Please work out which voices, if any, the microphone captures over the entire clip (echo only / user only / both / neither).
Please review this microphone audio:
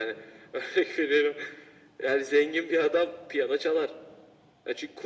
echo only